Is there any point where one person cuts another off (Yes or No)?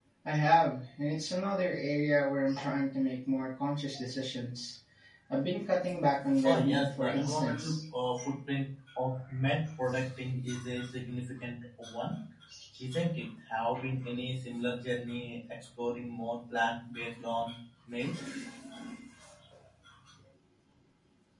Yes